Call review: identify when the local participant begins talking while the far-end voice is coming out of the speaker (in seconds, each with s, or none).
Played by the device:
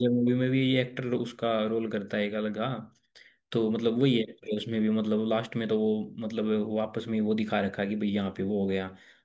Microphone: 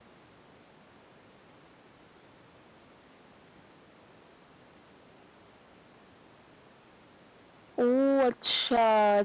7.8 s